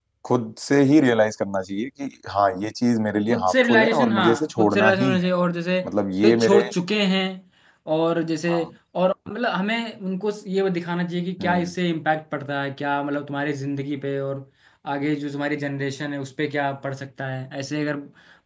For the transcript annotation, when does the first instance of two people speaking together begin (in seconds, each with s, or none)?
3.3 s